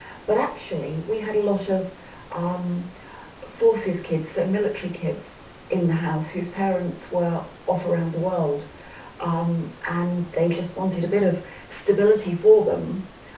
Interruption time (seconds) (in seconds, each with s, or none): none